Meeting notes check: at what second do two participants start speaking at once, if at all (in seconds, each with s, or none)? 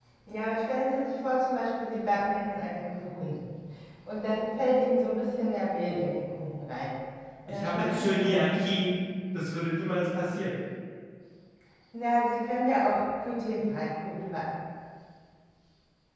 7.5 s